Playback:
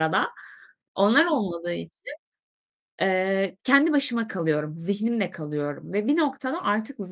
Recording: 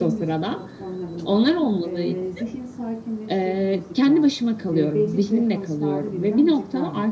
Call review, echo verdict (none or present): present